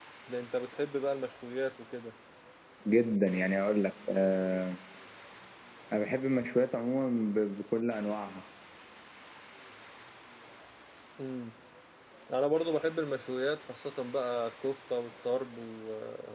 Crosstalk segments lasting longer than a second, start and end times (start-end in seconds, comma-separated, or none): none